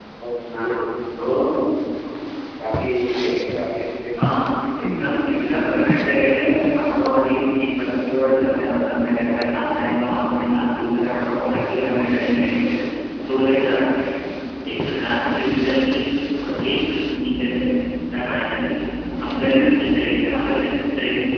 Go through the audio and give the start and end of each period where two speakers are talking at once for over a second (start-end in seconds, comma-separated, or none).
4.3-5.6